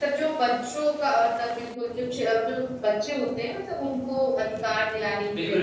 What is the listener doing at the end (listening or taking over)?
taking over